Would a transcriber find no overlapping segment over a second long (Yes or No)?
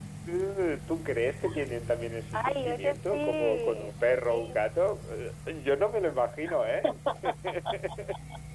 No